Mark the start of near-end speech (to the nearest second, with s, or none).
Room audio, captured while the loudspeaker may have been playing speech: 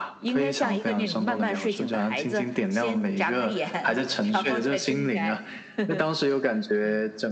none